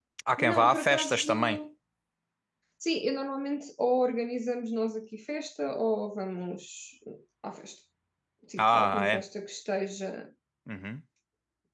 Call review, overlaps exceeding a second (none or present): present